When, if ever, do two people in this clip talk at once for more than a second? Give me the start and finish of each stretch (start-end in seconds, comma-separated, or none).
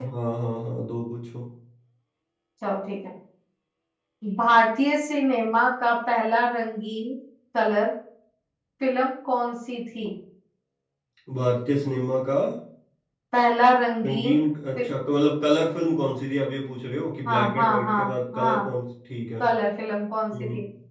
17.2-18.7